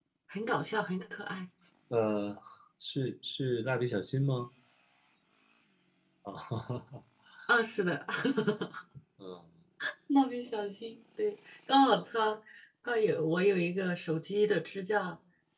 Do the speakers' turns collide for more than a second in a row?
No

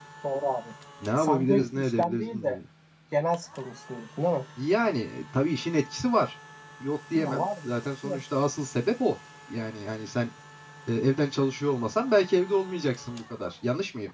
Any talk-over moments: Yes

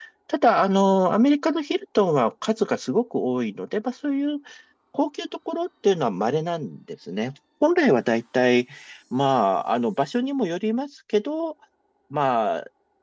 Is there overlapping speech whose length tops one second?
No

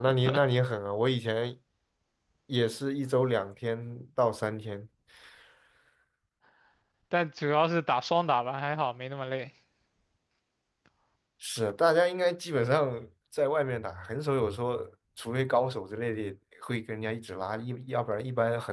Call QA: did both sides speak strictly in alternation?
Yes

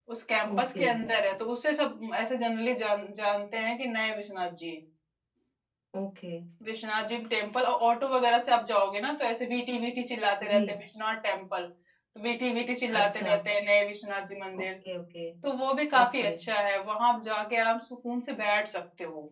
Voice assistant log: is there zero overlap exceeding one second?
Yes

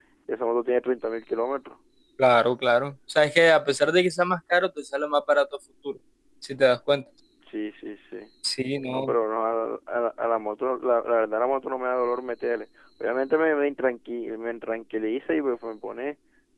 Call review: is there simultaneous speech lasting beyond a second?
No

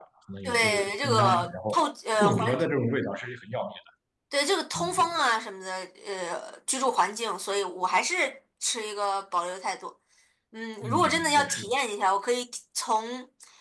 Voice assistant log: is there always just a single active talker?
No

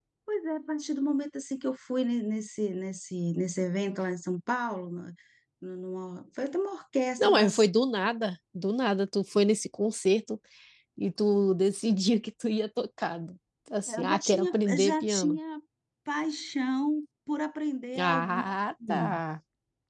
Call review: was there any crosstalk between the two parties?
Yes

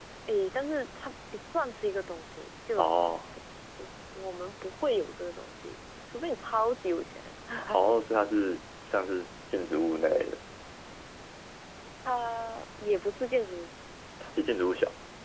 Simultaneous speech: No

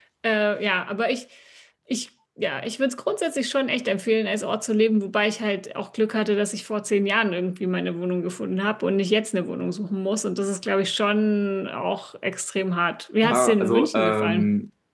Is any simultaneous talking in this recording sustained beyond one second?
Yes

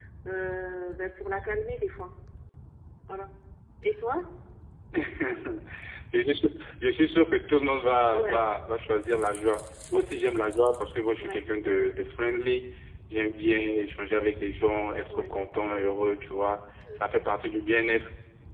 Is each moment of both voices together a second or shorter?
Yes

